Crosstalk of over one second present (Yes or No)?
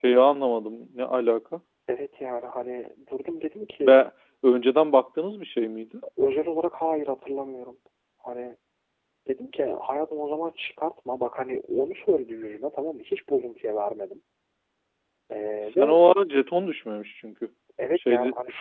No